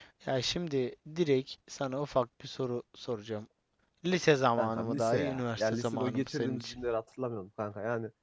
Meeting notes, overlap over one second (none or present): present